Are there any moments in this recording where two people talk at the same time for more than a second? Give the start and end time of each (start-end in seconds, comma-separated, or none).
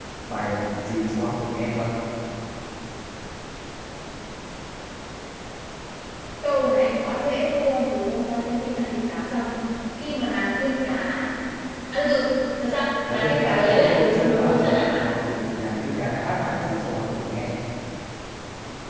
13.1-15.0